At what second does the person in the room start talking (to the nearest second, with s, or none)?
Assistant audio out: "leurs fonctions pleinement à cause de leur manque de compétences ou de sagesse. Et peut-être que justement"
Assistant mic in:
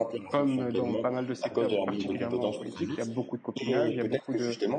0 s